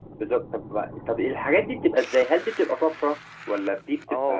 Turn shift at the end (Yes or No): Yes